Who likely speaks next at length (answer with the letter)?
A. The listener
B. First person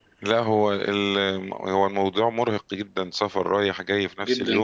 A